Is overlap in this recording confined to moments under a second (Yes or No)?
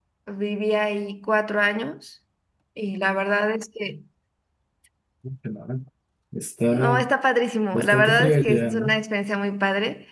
No